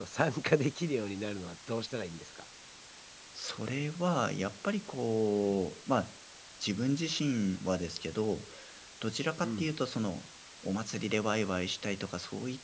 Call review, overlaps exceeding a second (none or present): none